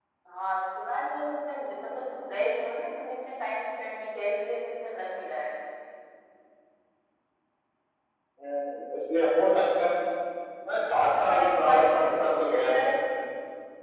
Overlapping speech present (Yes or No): Yes